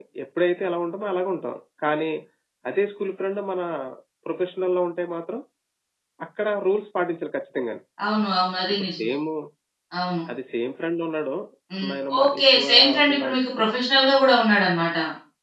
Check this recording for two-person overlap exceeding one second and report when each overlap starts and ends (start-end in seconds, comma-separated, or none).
11.9-13.4